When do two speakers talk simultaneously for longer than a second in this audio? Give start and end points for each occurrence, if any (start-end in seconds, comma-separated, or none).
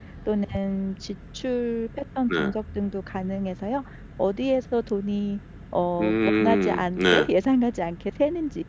6.0-7.2